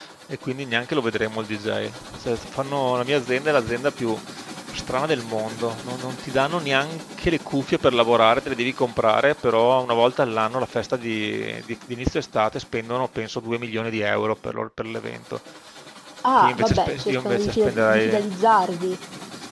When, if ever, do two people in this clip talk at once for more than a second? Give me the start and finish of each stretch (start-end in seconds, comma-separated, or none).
16.4-18.2